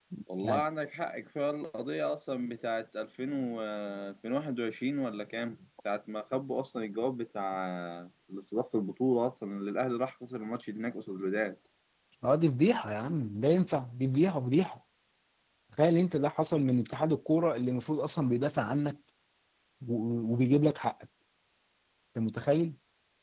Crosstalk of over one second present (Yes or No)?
No